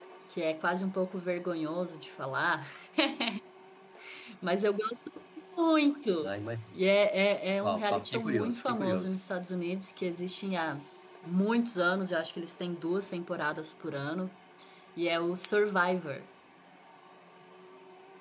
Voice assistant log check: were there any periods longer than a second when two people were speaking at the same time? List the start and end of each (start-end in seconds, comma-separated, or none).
7.6-9.1